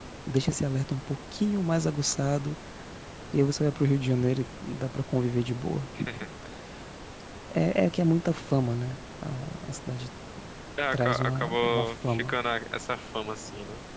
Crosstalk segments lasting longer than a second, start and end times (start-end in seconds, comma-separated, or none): 10.9-12.3